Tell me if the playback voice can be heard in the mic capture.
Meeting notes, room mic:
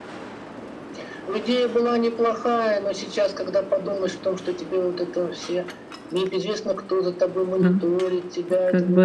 Yes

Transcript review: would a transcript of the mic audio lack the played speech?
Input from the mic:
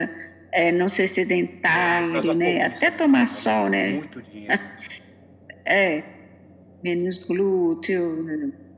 No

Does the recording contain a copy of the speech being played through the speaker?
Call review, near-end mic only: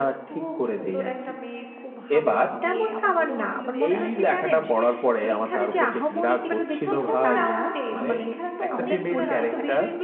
Yes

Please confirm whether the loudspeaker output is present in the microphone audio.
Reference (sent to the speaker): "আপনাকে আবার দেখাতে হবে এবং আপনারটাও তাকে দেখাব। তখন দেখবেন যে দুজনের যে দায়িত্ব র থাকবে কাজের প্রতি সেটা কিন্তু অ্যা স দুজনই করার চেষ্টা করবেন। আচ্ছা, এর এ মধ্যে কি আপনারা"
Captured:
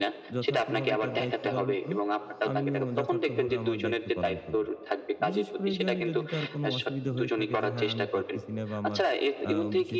Yes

